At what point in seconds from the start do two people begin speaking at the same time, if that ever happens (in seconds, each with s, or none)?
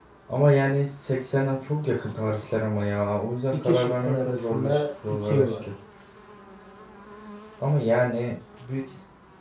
3.5 s